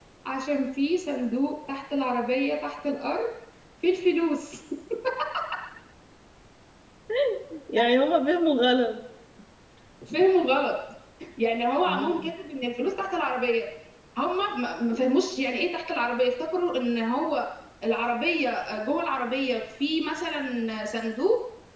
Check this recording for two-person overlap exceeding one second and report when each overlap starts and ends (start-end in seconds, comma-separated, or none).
none